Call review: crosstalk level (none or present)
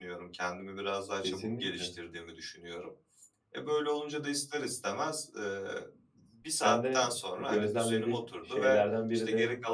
present